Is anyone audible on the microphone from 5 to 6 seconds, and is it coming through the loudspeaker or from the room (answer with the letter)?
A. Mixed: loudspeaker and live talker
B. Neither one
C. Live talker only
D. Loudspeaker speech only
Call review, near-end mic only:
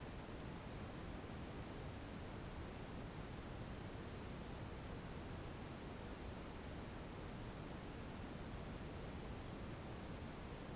B